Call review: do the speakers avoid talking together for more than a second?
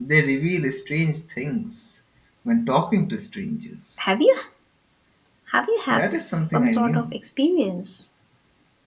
No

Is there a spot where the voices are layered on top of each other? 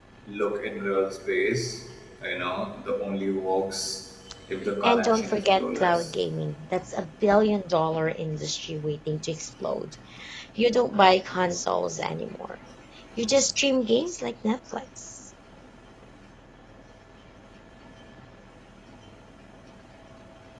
Yes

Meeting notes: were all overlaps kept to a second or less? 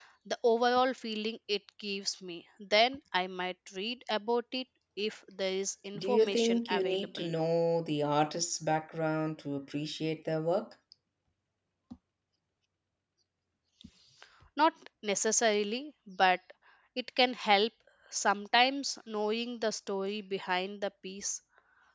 No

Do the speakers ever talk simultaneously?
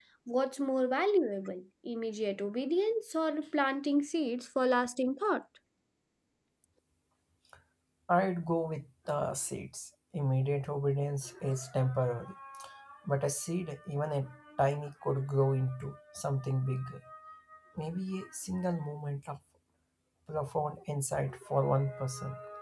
No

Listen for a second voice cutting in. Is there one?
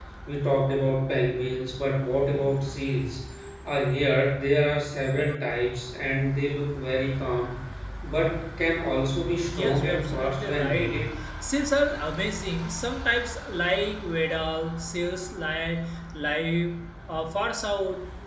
Yes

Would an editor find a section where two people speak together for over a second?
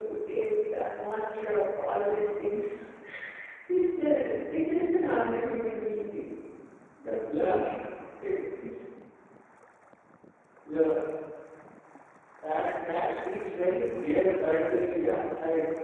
No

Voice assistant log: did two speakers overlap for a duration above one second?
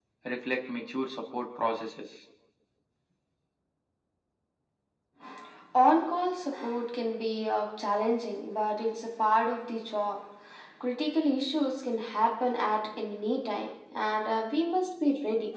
No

